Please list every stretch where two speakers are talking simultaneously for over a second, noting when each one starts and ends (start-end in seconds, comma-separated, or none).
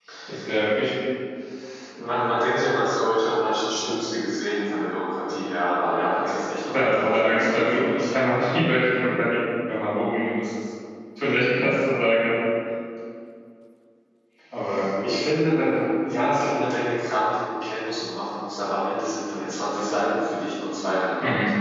6.7-8.1